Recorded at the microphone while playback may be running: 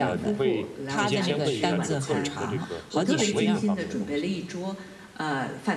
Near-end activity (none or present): present